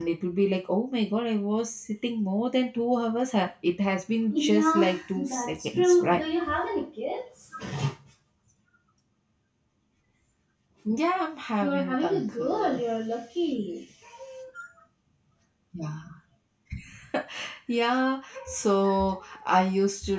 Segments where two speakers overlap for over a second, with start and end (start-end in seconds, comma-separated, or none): 4.3-6.2, 11.6-12.8